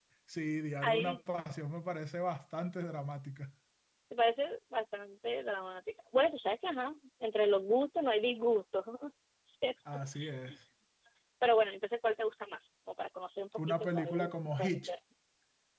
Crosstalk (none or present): present